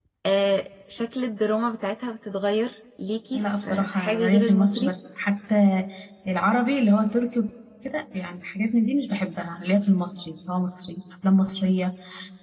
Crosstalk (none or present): present